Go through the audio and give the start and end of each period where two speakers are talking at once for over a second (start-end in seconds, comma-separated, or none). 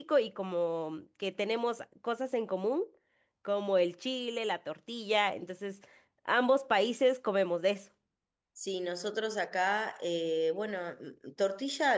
none